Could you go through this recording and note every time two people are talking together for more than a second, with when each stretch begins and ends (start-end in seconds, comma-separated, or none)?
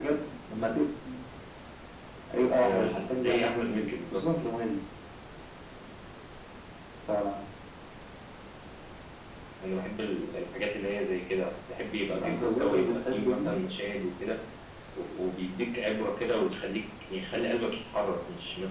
2.6-4.2, 12.1-13.6